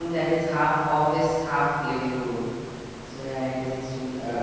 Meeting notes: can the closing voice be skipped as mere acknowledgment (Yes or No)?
No